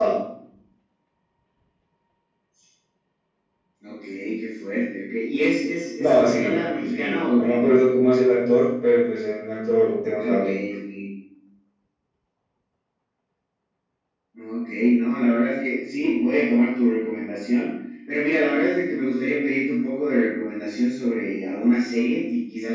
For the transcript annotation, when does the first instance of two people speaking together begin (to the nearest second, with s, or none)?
6 s